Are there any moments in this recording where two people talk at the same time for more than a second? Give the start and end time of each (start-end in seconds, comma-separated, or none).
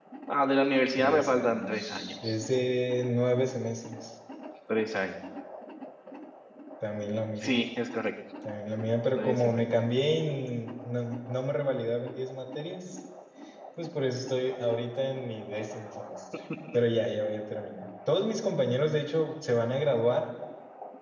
0.9-2.3